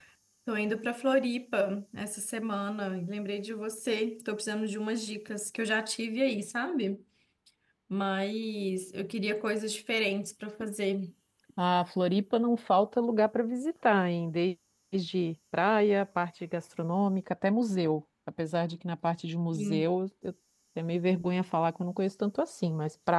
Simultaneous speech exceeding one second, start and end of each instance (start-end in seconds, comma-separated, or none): none